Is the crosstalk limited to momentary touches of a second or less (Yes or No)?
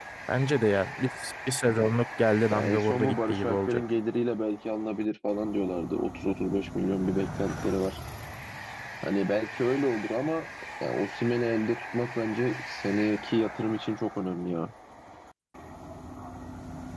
No